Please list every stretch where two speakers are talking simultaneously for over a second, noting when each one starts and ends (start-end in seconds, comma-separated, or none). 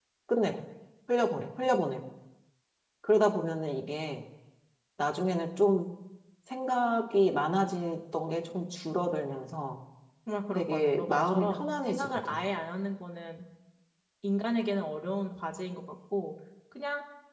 10.5-12.4